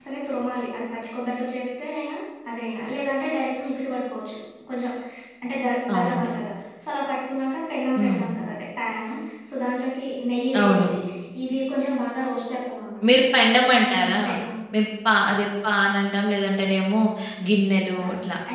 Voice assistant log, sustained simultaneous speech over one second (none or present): none